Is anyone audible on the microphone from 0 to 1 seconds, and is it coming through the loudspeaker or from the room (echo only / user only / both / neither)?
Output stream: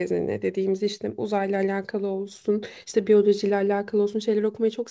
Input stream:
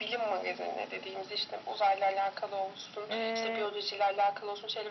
echo only